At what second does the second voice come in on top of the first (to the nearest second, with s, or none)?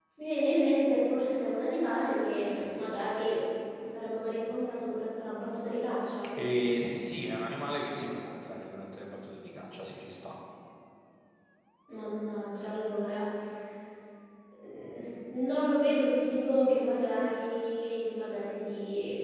none